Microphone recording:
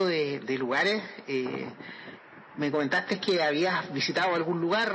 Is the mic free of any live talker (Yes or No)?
Yes